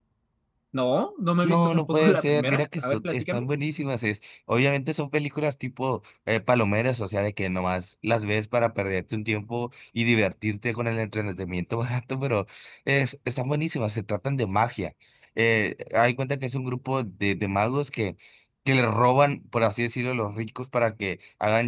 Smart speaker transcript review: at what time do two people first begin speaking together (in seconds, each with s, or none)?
1.4 s